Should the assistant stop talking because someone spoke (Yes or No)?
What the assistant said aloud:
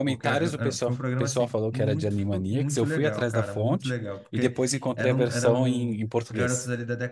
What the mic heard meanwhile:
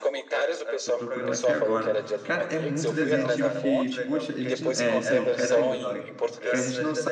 Yes